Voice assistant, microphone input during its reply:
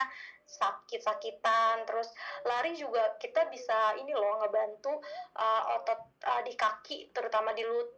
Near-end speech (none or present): none